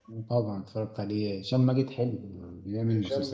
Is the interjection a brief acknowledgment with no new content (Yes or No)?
No